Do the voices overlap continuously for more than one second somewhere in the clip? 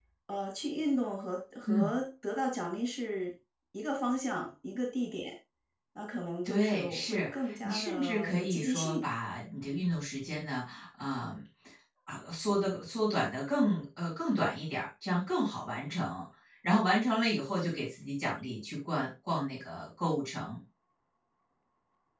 Yes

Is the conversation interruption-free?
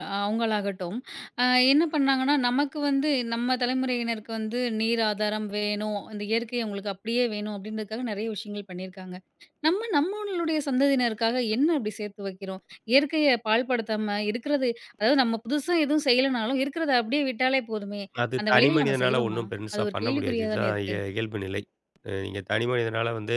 No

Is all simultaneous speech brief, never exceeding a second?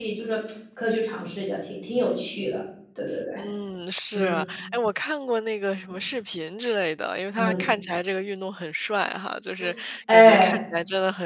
Yes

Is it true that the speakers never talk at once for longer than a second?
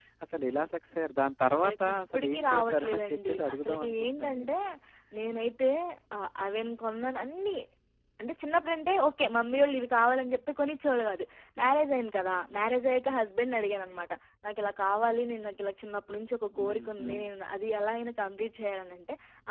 No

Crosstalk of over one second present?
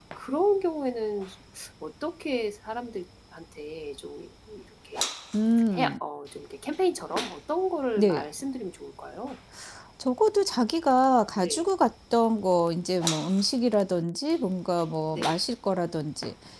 No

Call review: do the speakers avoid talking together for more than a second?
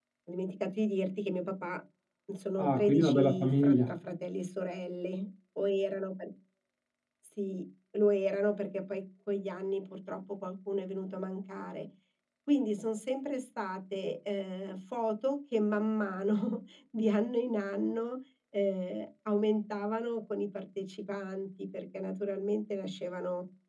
No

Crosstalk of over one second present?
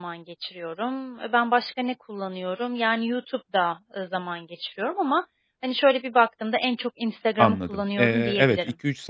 Yes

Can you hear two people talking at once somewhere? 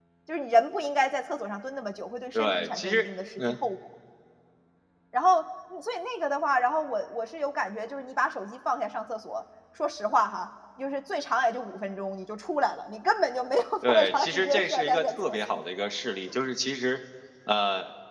Yes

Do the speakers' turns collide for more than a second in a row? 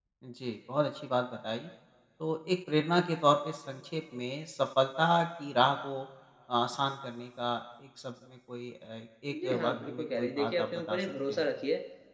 Yes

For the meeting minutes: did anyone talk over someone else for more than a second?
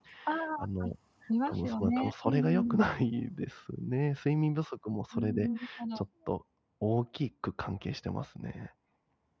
Yes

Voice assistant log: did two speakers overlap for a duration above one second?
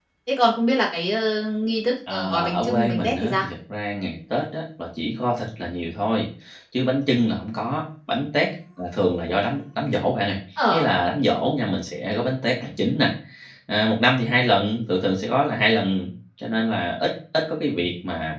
Yes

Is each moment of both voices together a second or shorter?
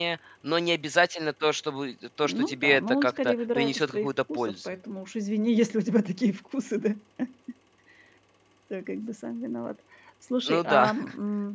No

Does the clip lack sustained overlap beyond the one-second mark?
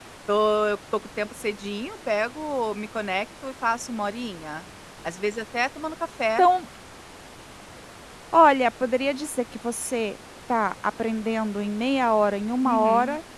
Yes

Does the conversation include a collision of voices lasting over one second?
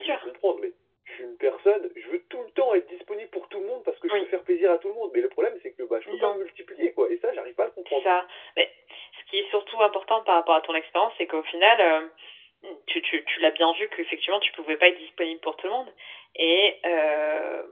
No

